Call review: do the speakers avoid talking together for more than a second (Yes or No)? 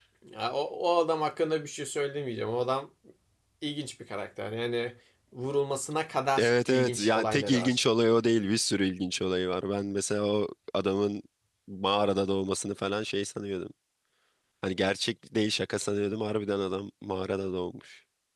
No